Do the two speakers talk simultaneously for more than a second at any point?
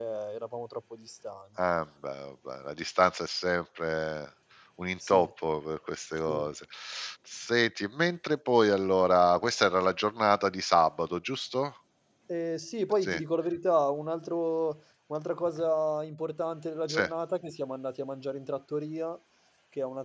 No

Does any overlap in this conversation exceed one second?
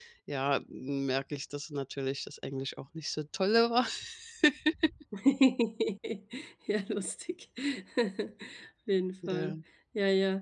No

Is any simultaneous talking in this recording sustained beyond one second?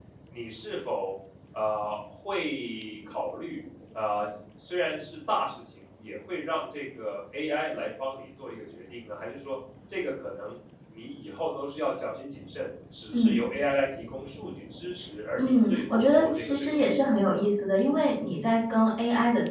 Yes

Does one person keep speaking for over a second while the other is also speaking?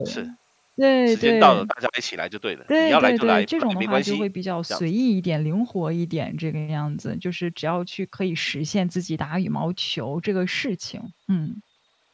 Yes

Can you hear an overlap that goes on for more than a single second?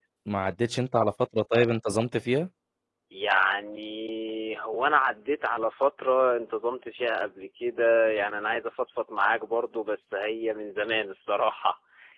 No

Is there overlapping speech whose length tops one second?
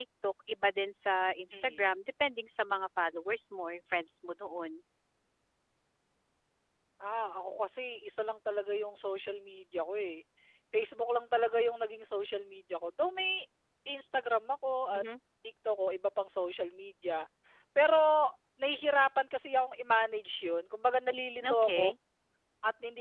No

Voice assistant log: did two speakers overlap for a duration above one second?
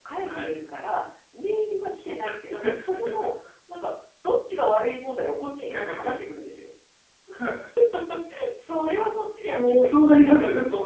Yes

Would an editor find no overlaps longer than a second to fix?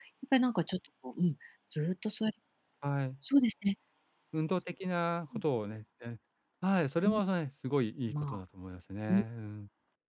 Yes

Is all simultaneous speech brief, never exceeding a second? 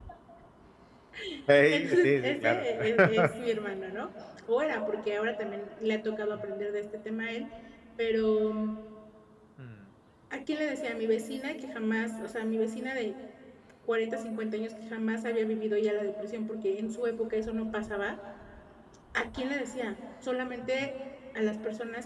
No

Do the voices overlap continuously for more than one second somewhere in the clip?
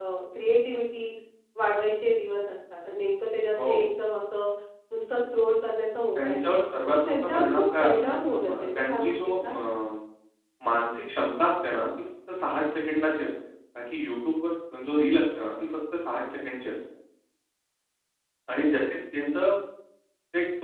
Yes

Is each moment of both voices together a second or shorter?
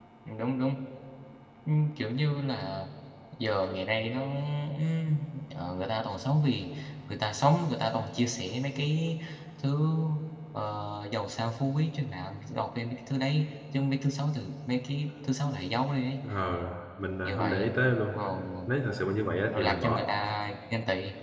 Yes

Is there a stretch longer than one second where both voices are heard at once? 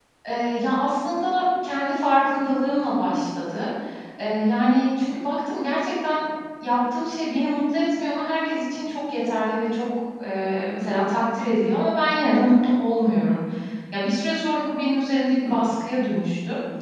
No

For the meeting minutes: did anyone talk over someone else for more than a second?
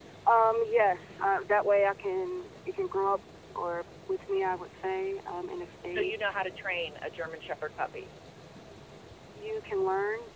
No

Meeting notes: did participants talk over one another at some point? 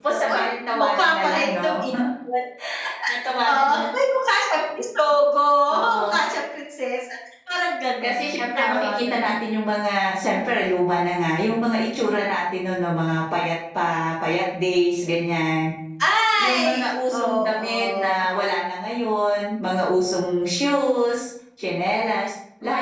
Yes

